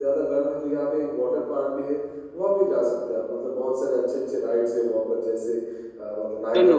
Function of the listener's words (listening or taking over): listening